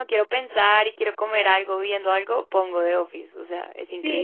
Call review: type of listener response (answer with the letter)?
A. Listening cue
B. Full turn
B